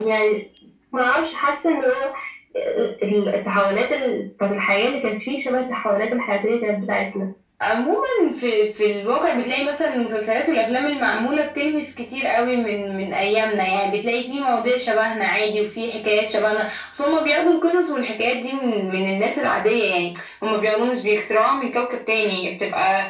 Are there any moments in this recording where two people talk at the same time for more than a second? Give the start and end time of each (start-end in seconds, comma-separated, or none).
none